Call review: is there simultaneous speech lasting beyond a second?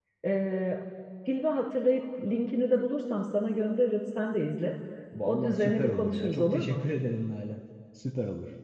Yes, from 5.2 s

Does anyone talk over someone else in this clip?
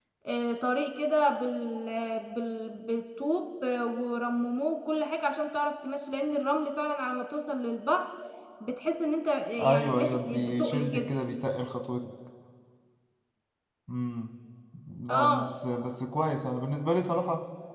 Yes, from 9.6 s

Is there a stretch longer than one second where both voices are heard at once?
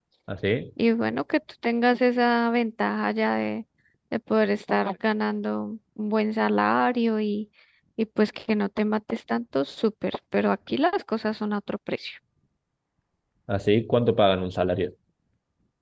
No

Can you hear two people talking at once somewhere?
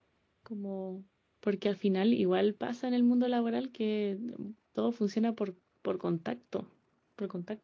No

